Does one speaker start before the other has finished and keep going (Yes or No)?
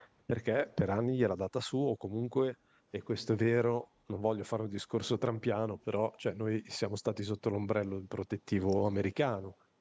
No